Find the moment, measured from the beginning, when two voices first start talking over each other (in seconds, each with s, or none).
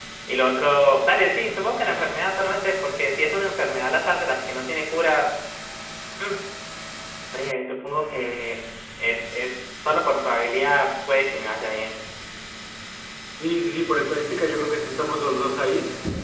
none